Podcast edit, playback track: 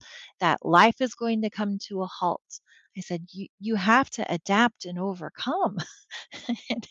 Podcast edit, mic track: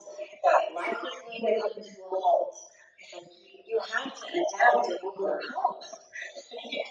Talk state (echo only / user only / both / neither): echo only